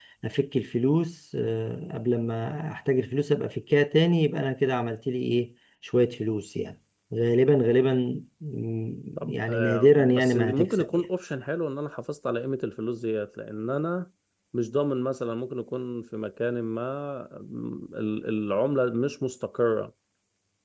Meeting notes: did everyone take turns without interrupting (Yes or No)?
No